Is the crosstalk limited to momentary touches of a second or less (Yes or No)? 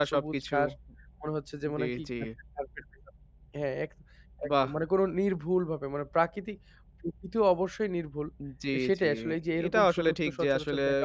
No